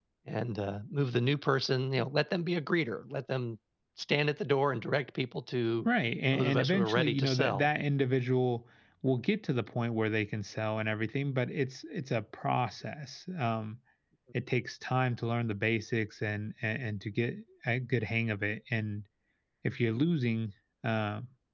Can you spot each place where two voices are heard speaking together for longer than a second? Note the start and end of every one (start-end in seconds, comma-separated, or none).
6.3-7.7